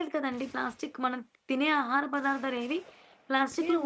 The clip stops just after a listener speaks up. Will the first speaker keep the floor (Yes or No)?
No